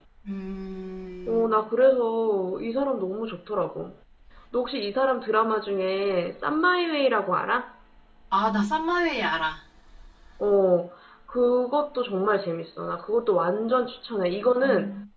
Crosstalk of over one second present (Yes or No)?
No